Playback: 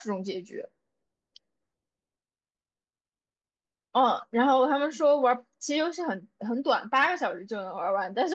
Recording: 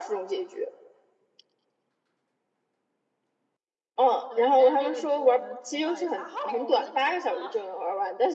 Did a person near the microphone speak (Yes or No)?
Yes